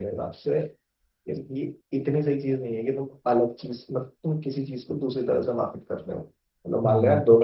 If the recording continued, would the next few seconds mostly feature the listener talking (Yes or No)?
Yes